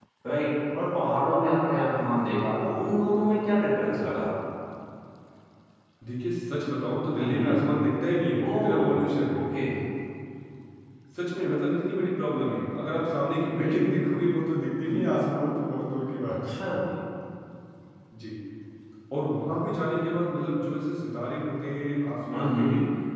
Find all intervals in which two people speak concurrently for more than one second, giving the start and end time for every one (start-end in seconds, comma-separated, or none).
none